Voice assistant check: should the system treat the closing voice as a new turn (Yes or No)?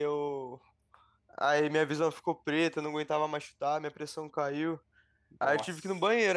No